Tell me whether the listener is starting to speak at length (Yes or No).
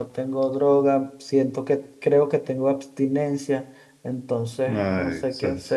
Yes